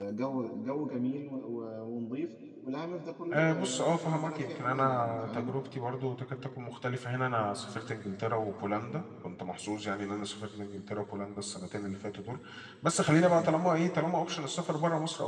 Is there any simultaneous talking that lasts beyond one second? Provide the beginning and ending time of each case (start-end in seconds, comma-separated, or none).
3.3-5.5